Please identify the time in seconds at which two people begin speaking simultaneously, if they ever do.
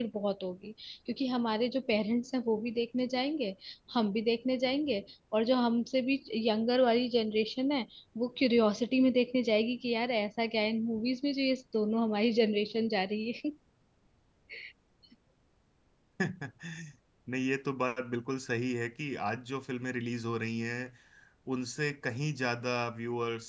none

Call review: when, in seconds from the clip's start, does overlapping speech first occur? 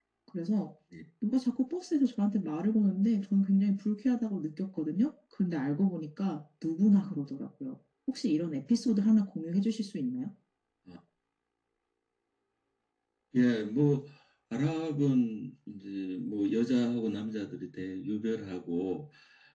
none

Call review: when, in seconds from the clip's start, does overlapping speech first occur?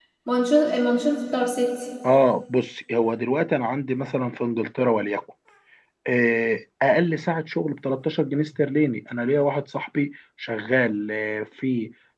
none

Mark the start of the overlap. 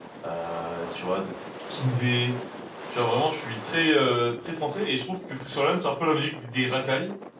none

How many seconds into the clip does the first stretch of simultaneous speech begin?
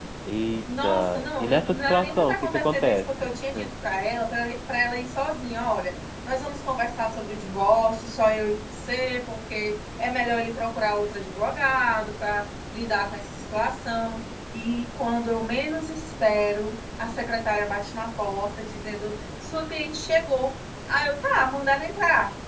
0.8 s

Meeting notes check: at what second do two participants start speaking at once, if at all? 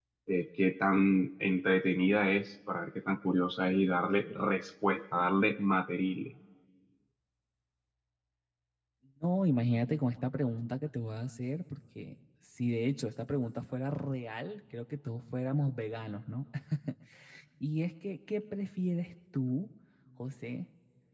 none

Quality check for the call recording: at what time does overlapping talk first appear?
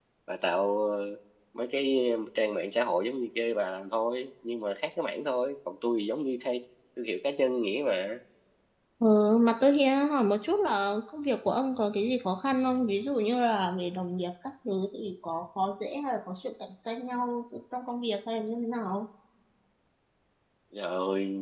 none

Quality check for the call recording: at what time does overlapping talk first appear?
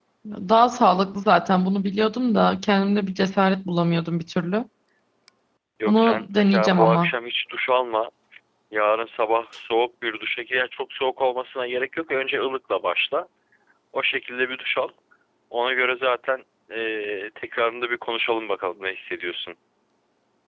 5.9 s

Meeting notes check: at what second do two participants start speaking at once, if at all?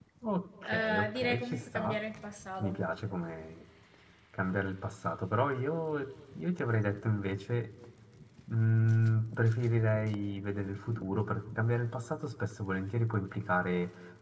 0.6 s

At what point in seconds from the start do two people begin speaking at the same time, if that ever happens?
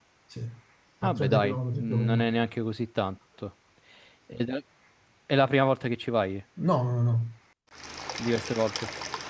1.0 s

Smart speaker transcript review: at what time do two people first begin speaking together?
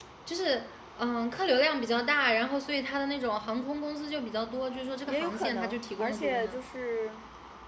5.1 s

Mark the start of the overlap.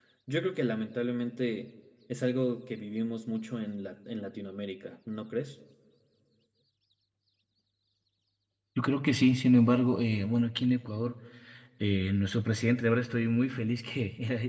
none

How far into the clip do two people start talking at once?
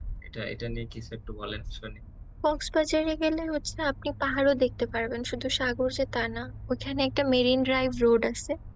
none

